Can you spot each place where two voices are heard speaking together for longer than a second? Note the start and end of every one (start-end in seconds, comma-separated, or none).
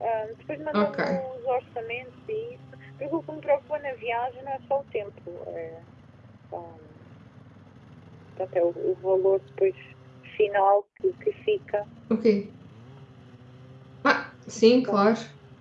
none